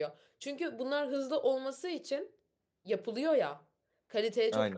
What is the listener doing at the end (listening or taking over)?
listening